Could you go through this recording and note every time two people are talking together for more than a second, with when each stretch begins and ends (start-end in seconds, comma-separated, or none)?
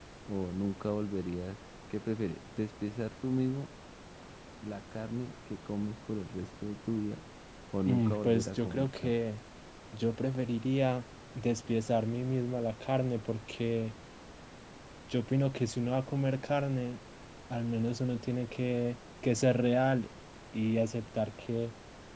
7.8-9.1